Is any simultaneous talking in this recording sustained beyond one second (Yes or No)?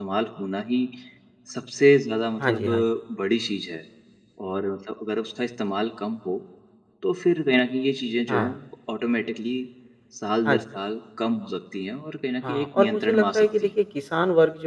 Yes